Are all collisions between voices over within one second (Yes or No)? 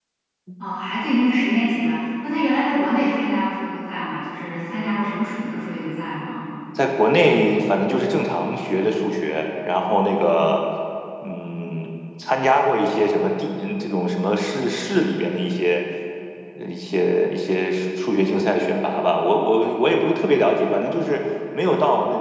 Yes